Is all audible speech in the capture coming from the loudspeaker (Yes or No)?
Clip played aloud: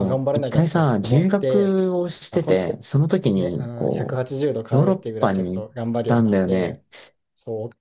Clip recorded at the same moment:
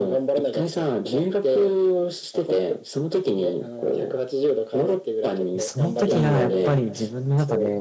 No